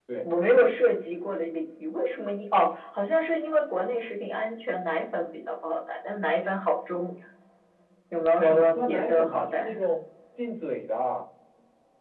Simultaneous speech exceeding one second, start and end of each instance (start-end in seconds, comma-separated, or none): 8.4-9.8